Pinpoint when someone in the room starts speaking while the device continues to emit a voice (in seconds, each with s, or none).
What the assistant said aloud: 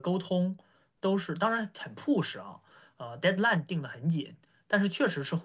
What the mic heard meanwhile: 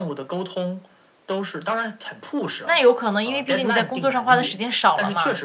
2.6 s